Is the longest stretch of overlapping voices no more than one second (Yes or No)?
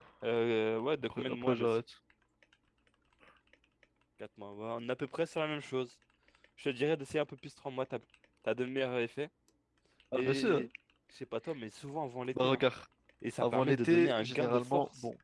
No